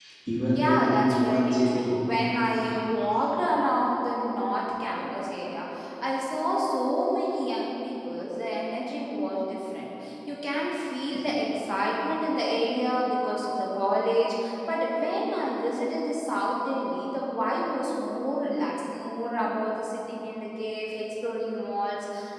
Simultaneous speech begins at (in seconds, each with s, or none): 0.6 s